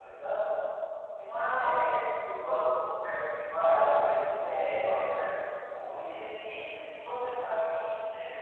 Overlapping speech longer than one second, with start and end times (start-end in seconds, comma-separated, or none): 3.6-5.3